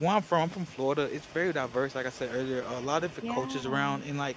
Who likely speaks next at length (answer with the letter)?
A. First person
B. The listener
A